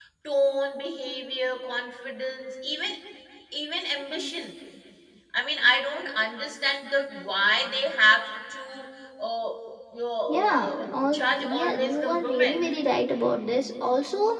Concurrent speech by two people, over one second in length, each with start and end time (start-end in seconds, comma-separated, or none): 10.3-12.7